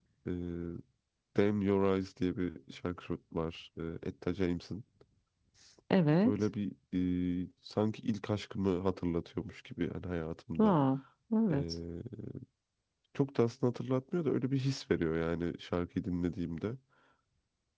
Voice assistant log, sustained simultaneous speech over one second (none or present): none